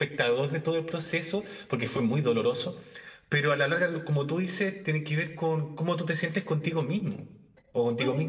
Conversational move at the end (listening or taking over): taking over